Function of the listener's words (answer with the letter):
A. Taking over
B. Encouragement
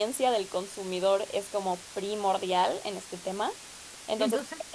B